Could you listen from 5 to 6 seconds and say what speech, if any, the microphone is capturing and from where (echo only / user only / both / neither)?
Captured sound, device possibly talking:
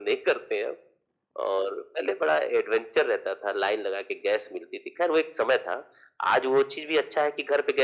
echo only